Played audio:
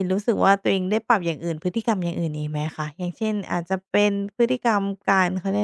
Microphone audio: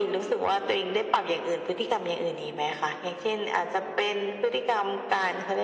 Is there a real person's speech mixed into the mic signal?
No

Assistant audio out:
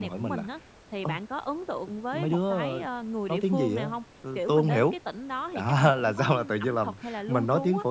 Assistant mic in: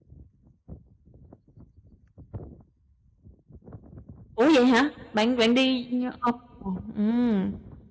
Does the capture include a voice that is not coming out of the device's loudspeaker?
Yes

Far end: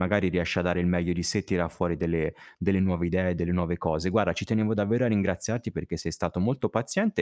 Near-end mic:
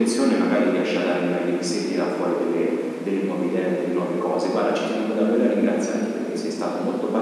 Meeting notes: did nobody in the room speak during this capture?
Yes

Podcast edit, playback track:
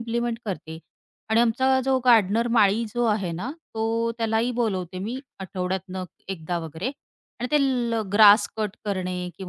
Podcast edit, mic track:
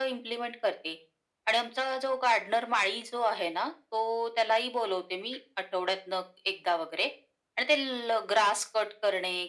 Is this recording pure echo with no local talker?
Yes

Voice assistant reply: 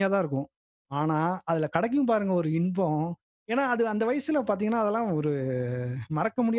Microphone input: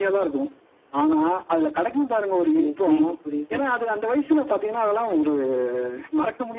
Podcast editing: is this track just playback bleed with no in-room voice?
No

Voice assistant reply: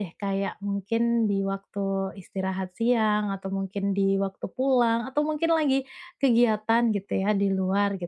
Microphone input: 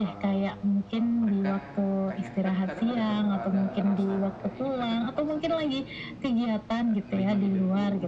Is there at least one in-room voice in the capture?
Yes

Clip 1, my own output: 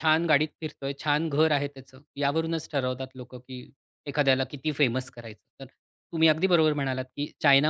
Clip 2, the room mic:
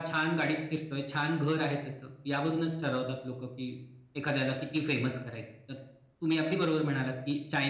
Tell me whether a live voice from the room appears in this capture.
No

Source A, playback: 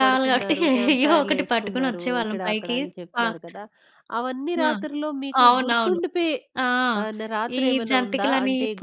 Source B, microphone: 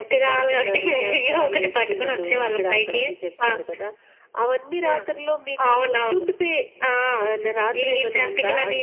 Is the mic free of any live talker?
Yes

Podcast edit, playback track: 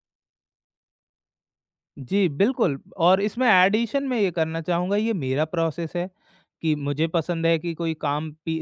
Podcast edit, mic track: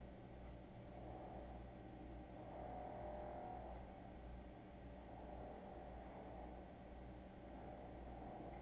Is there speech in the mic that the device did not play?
No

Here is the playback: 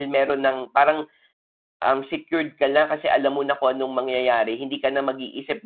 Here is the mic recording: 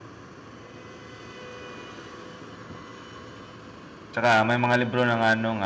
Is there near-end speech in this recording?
Yes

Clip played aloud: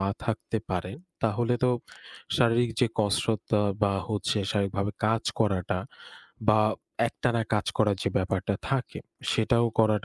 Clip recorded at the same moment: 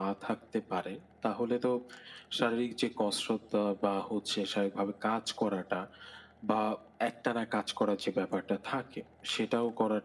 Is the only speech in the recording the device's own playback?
Yes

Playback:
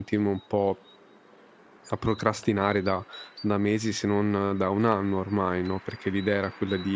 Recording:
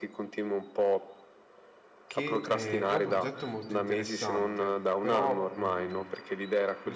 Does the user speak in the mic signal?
Yes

